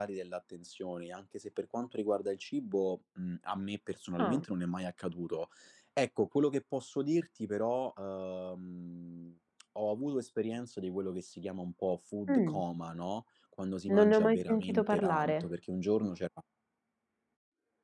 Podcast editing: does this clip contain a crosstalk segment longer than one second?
Yes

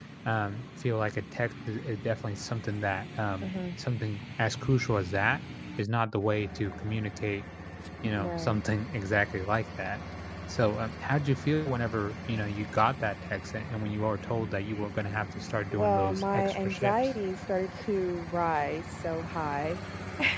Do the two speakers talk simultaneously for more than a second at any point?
Yes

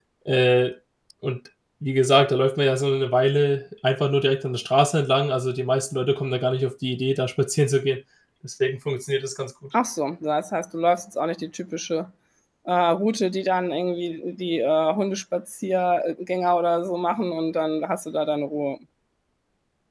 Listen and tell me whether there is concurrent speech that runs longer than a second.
No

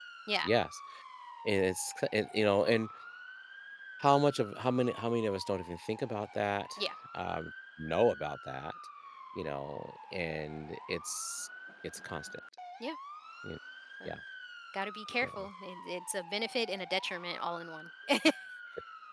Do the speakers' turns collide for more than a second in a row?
No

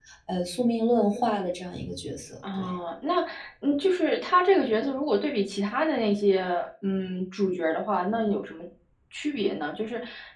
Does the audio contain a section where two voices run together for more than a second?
No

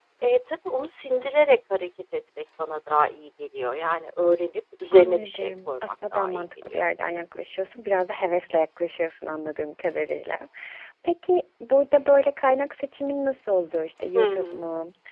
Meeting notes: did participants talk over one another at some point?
Yes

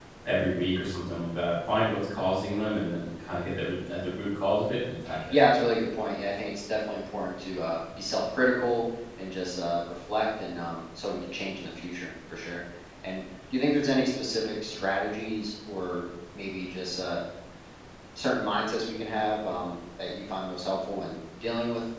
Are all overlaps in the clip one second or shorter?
Yes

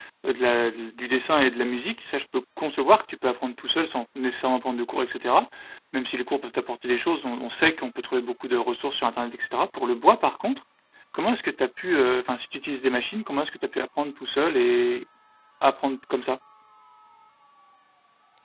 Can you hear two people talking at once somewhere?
No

